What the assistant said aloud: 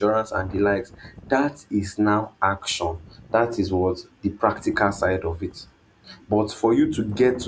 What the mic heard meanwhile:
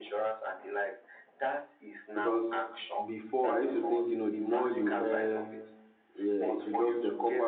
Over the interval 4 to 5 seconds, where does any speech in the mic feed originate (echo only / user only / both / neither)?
both